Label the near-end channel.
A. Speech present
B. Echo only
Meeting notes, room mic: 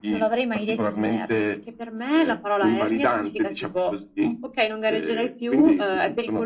B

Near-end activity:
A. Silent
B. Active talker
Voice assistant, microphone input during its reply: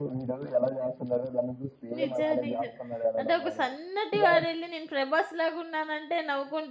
B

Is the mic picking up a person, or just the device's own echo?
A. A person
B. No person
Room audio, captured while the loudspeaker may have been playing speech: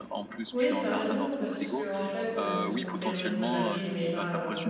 A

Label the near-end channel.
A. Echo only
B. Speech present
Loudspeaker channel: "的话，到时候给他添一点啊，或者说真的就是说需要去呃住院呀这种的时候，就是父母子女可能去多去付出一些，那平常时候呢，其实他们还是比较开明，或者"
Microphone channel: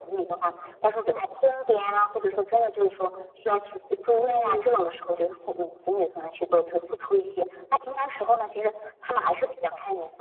B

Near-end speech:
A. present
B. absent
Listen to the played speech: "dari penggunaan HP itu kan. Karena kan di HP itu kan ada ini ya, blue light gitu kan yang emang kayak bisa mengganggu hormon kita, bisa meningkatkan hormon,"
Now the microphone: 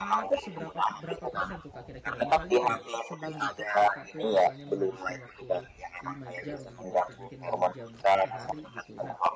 A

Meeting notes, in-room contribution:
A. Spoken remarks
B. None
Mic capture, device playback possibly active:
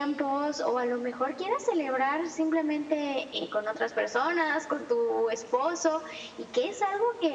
B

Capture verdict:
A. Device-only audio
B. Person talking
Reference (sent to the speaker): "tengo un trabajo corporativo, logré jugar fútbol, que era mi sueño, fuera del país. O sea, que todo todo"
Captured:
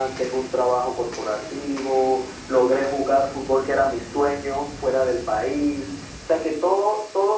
A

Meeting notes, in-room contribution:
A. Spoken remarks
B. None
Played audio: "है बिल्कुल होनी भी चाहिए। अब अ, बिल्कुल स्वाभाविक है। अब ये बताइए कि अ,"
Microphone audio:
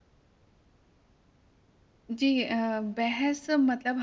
A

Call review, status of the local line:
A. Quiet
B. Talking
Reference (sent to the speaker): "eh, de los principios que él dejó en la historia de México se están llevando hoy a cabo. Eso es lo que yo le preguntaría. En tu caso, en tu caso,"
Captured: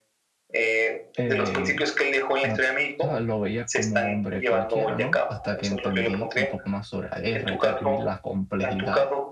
B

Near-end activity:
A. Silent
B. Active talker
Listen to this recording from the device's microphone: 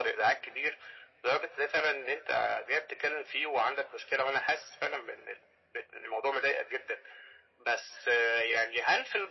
A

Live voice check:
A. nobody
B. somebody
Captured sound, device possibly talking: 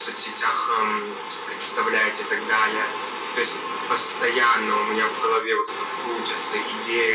A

